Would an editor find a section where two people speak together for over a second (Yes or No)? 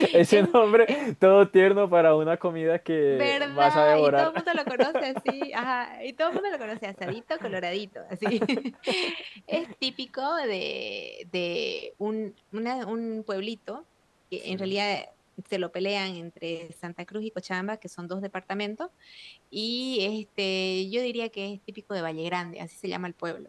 Yes